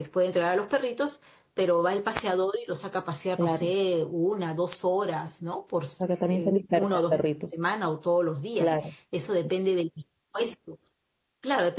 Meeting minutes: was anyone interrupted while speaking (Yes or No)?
Yes